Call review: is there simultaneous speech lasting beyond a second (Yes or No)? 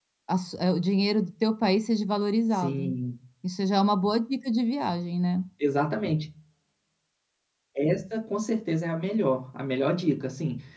No